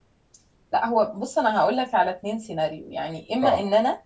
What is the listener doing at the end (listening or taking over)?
listening